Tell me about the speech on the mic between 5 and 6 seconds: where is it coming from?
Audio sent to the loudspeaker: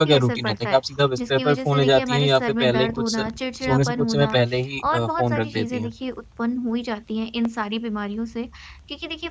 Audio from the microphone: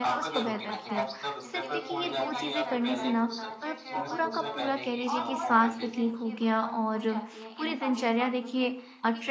both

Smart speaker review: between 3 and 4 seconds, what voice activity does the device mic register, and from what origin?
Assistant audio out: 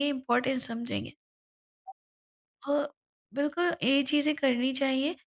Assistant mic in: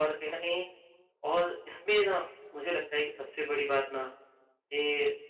user only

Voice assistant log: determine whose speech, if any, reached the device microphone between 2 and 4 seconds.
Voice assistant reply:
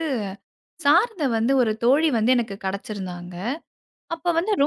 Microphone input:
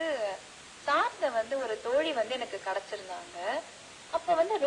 echo only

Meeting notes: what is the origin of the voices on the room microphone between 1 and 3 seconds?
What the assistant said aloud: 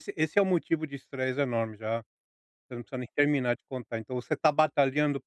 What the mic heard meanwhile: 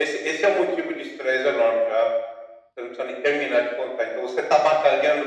echo only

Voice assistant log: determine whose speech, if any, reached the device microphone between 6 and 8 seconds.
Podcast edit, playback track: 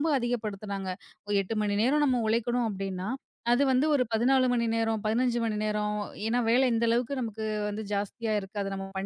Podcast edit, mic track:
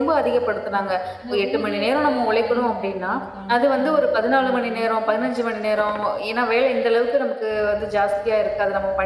echo only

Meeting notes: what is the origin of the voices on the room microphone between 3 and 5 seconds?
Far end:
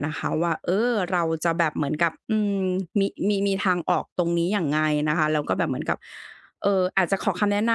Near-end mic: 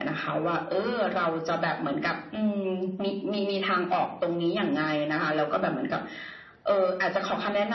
echo only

